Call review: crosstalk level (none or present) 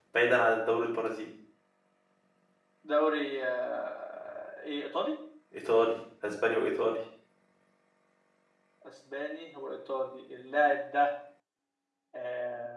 none